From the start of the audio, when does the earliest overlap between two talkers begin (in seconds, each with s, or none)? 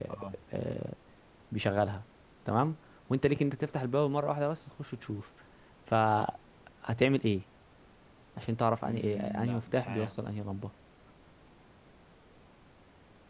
8.8 s